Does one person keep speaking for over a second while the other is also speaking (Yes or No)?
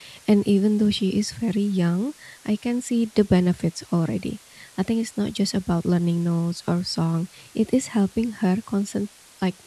No